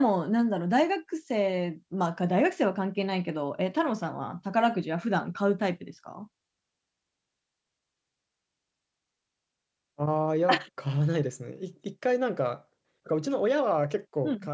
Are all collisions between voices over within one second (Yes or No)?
Yes